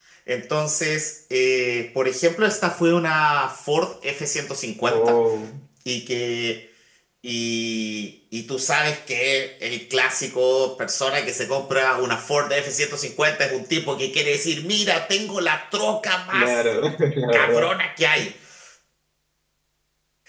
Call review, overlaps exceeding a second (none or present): none